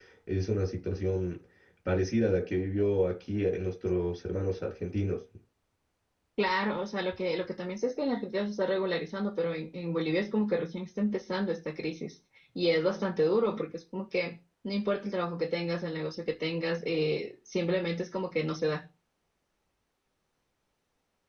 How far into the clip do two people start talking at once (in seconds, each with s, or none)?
none